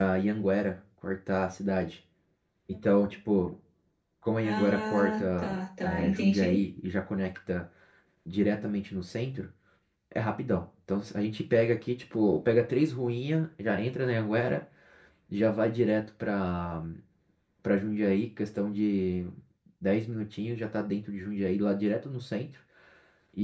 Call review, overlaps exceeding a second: present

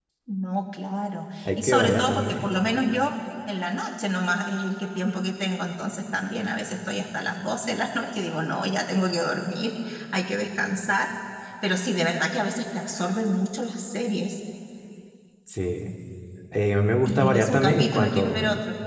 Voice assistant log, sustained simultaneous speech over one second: present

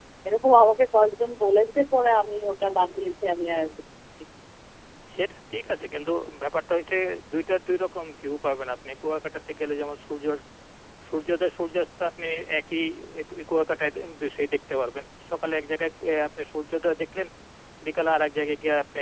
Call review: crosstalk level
none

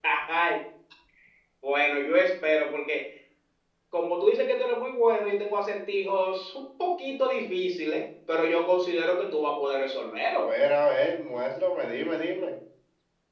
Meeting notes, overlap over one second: none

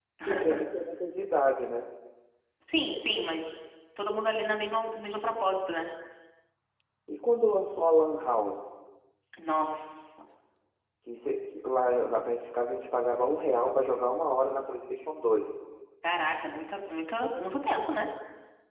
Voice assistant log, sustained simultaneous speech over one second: none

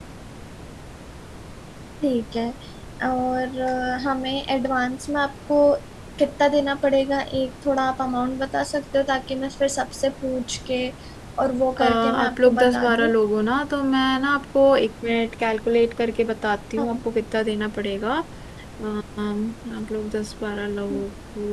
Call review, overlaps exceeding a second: present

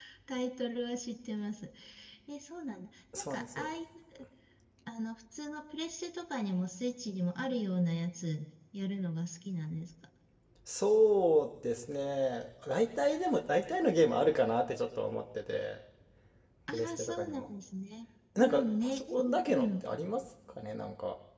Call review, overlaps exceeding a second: present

